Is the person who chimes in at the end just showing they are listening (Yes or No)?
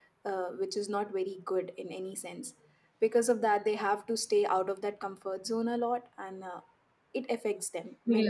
No